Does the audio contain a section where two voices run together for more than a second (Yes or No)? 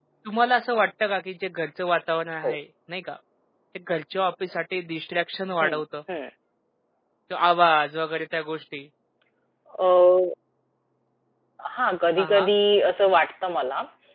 No